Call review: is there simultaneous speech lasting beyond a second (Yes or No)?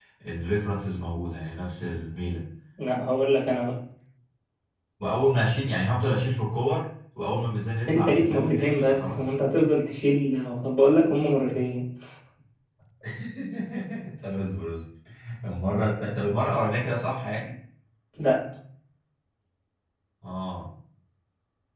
Yes